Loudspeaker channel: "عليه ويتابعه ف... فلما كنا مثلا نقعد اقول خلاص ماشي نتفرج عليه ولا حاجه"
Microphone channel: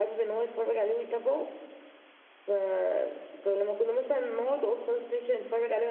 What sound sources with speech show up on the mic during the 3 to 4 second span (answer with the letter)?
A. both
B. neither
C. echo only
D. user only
C